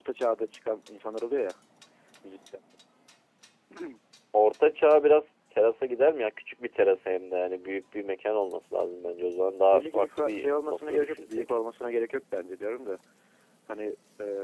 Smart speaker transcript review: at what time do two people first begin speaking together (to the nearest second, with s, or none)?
10 s